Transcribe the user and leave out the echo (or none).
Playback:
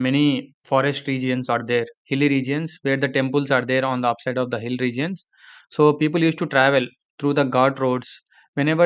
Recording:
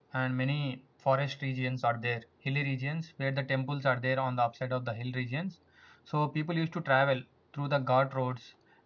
none